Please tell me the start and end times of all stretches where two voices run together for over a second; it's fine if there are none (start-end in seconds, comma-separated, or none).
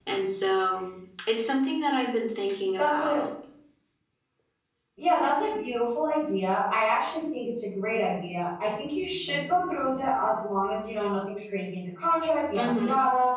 none